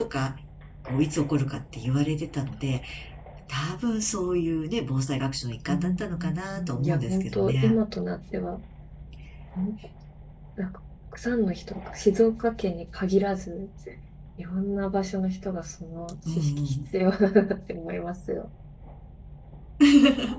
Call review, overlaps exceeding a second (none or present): present